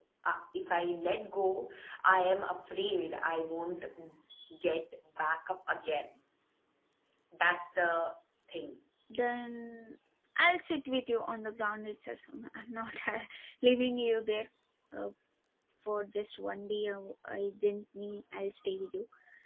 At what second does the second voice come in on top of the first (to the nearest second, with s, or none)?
none